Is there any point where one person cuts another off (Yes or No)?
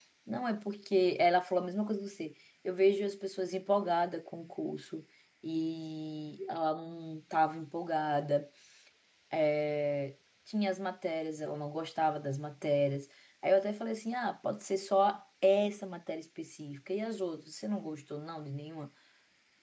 No